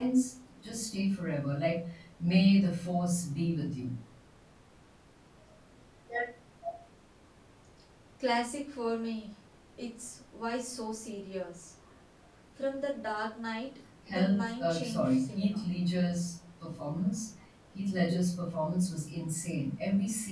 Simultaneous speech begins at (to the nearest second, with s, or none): 14 s